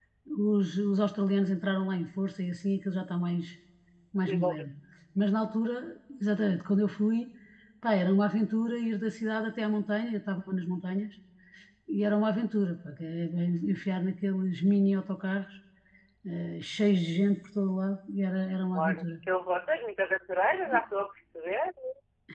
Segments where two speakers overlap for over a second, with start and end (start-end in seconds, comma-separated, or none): none